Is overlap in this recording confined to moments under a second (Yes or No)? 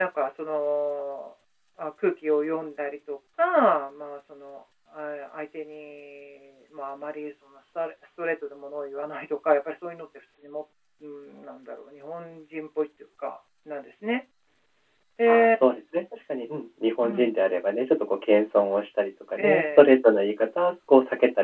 Yes